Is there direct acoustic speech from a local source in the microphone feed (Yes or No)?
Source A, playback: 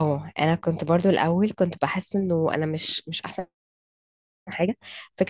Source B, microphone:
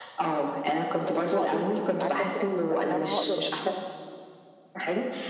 Yes